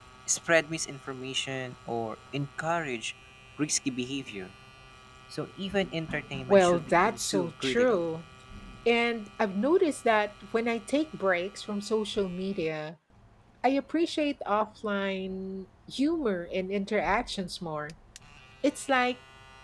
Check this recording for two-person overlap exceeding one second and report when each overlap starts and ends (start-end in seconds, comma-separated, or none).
6.5-8.1